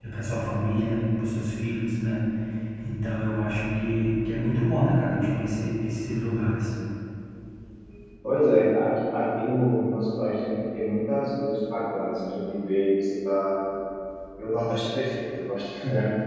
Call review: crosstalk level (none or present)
none